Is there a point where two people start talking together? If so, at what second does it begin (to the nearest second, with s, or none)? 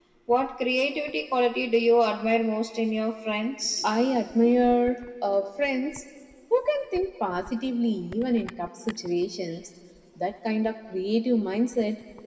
none